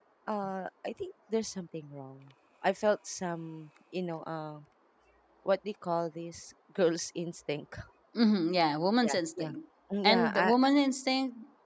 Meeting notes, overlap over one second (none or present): none